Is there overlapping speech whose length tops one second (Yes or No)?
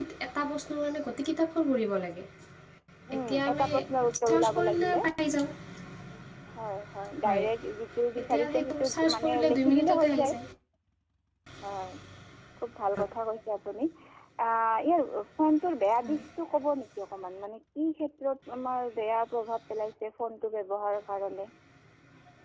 Yes